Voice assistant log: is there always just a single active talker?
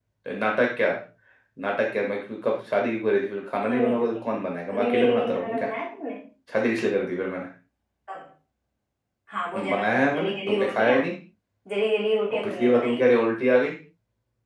No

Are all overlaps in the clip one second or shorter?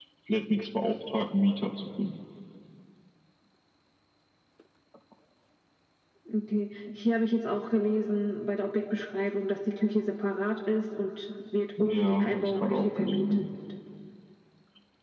No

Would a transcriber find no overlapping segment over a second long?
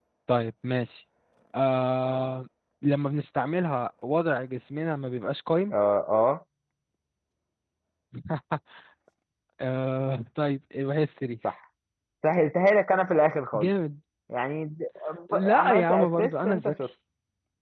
No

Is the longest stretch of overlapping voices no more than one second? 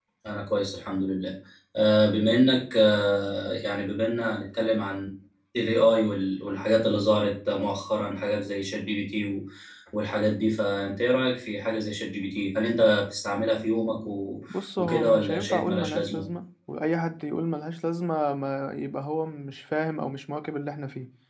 No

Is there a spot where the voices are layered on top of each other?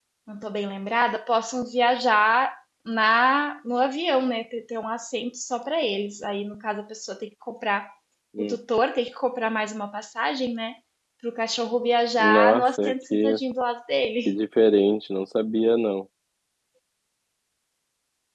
Yes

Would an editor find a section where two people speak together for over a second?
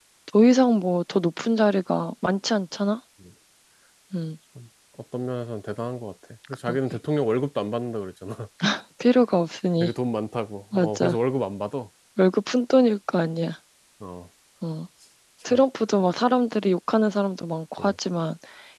No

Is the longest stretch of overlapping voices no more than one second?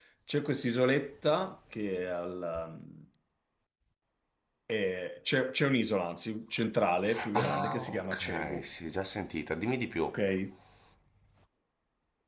No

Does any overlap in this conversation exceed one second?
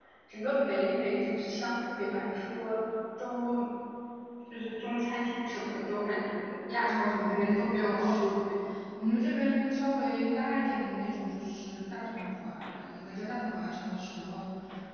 Yes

